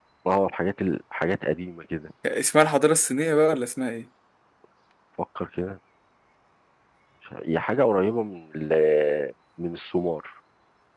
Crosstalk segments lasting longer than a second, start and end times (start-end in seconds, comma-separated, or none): none